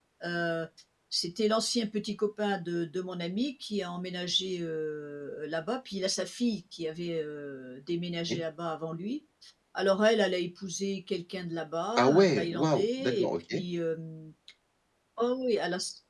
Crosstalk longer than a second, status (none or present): present